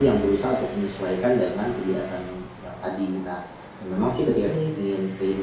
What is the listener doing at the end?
listening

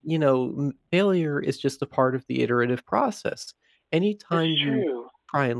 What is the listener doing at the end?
listening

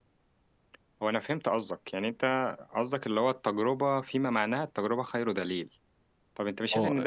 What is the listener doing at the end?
listening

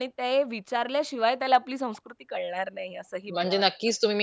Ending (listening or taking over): taking over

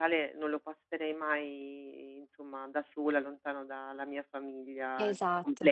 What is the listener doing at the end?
taking over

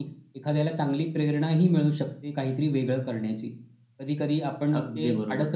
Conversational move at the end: listening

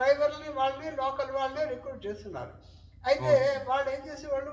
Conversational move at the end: listening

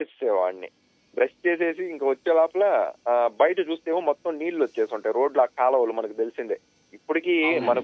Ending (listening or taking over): listening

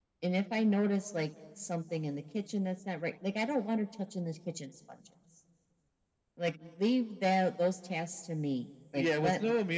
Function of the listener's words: taking over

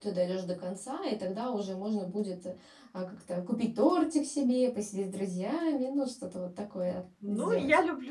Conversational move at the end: taking over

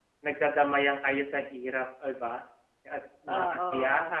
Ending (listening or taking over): listening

